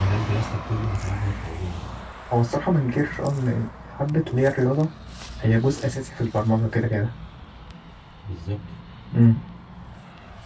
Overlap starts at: none

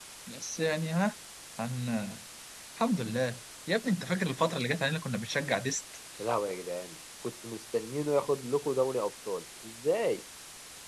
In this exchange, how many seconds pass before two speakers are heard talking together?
none

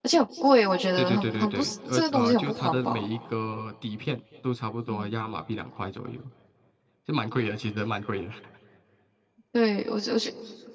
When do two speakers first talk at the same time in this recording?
1.0 s

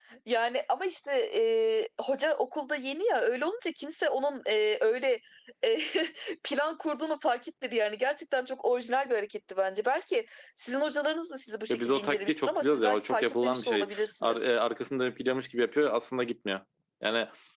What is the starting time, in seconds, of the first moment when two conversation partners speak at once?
11.7 s

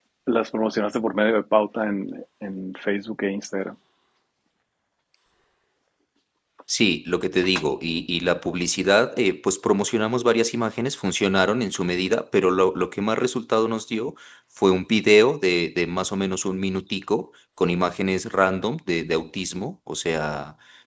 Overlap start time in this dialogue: none

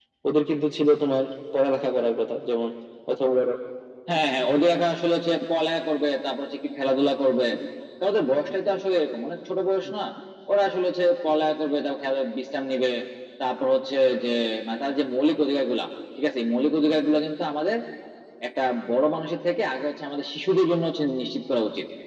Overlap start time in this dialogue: none

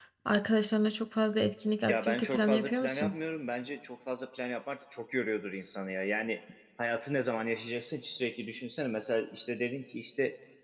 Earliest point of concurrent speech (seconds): 1.9 s

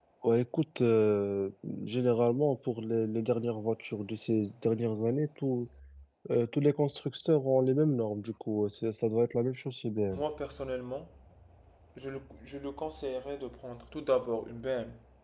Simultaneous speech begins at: none

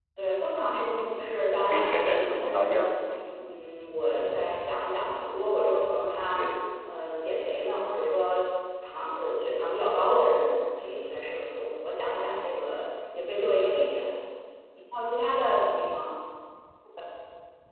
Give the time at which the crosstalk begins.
1.7 s

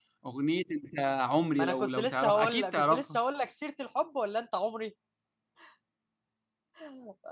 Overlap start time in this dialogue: 1.6 s

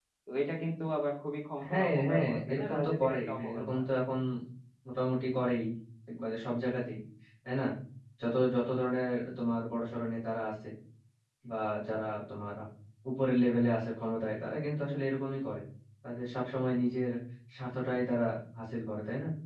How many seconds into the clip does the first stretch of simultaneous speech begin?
1.6 s

